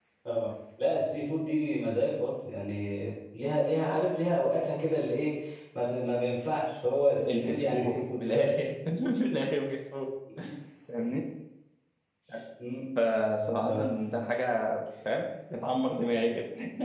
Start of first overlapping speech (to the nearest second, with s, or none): 7 s